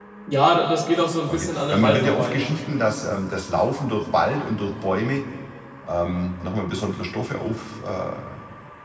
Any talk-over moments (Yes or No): Yes